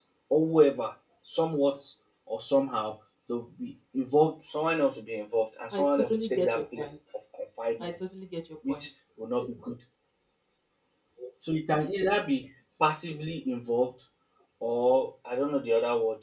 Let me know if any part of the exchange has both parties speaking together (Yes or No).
Yes